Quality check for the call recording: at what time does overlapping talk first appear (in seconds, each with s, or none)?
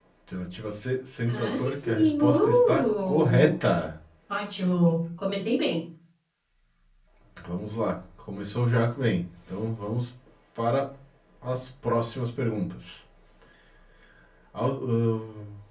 1.3 s